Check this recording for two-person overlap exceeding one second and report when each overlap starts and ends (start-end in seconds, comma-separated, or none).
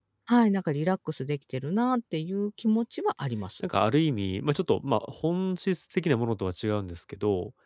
none